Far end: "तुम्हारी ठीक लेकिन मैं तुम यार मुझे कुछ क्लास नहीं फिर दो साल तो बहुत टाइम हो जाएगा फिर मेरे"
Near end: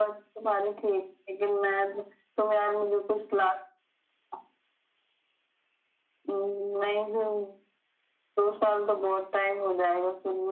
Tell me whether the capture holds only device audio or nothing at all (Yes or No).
Yes